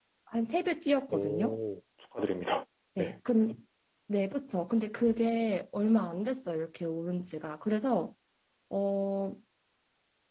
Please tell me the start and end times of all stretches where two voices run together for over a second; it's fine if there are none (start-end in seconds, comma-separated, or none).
none